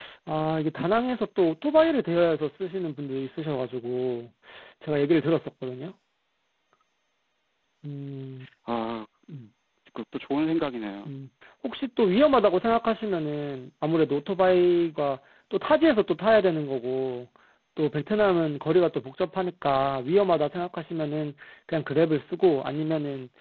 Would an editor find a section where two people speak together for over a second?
No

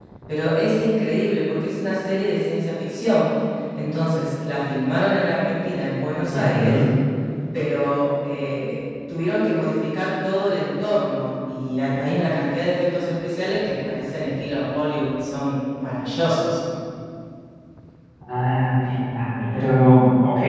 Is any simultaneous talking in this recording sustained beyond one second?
No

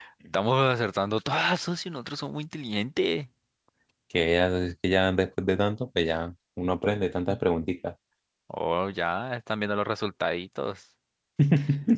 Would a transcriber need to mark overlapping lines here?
No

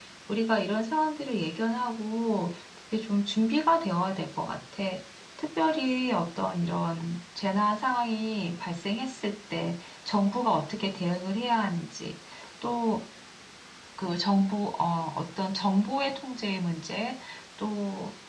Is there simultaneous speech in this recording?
No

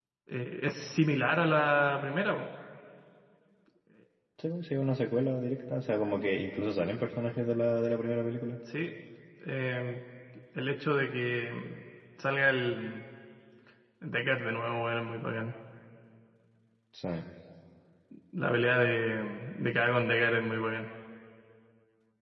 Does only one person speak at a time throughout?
Yes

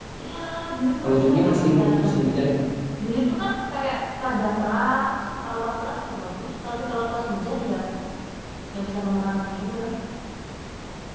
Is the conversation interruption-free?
No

